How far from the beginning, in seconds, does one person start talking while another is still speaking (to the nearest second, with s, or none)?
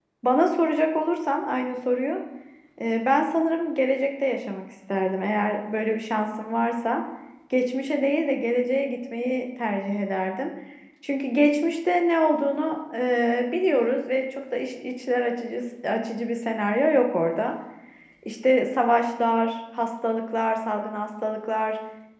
none